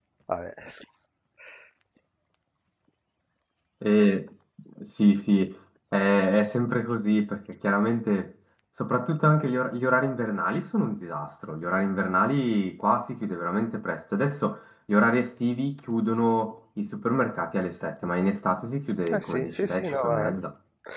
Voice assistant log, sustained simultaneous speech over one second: present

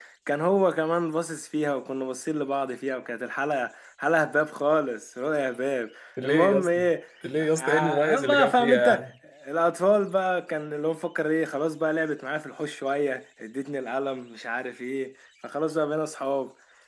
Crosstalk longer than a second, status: present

